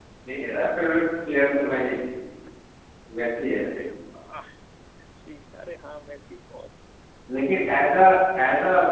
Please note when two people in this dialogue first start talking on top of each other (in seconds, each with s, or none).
none